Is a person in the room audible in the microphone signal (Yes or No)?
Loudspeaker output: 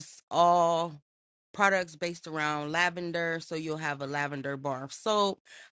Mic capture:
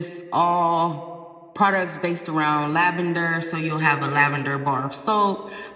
No